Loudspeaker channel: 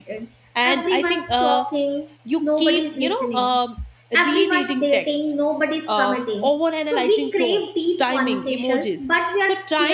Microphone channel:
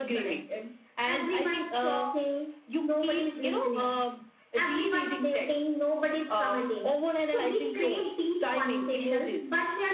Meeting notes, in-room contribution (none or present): none